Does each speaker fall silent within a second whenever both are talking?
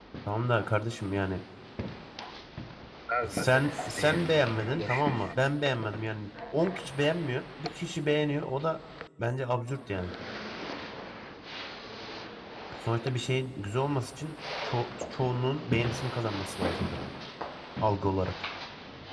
No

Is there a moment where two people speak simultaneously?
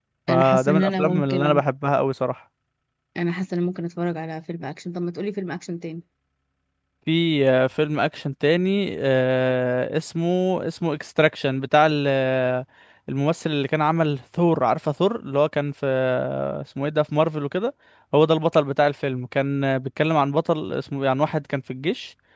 Yes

